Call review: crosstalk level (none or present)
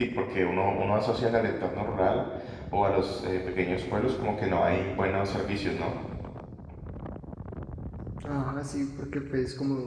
none